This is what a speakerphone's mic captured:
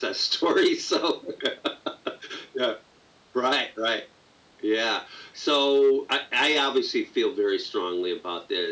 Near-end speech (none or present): none